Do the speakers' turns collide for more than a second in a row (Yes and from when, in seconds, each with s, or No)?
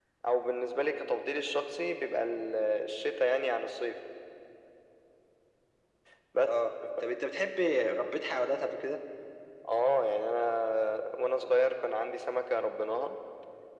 No